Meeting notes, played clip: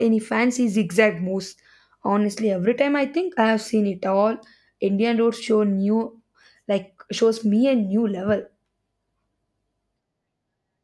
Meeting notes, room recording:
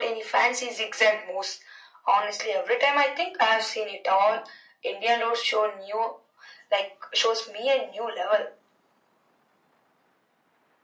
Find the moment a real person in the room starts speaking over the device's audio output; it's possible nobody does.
none

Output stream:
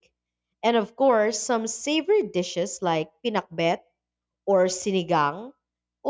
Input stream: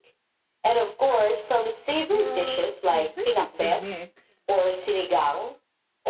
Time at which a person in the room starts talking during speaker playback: 2.1 s

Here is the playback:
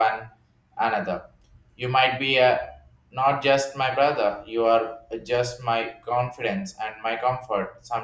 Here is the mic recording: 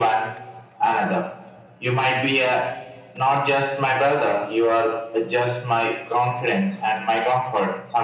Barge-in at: none

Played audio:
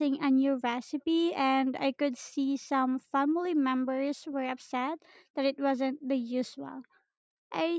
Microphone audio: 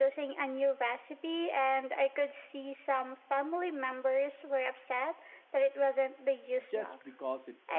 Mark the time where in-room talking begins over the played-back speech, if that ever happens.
6.6 s

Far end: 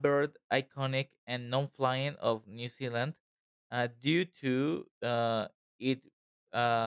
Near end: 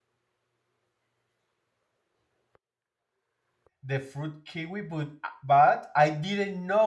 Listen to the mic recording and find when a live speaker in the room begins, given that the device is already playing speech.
3.8 s

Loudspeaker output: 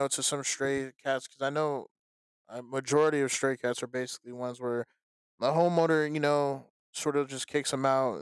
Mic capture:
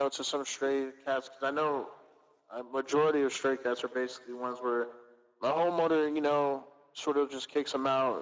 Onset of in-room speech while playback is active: none

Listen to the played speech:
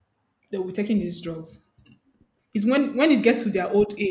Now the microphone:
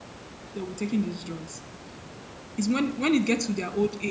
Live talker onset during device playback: none

